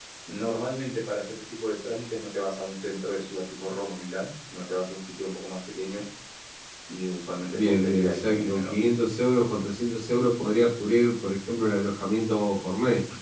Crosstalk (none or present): present